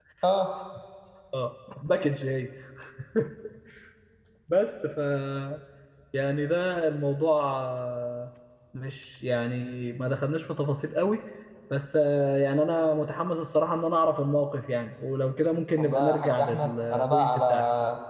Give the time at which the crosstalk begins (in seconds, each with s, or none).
15.8 s